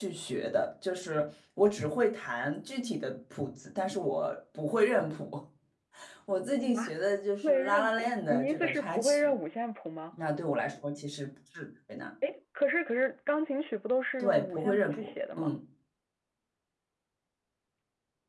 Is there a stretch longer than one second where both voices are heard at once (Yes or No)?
Yes